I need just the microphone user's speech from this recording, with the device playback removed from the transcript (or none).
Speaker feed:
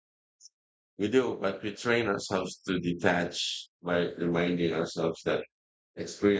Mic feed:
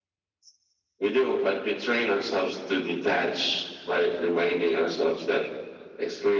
none